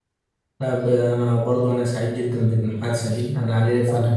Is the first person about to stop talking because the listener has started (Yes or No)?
No